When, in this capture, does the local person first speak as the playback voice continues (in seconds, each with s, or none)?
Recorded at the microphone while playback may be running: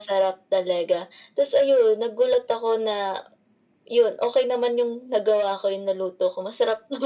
none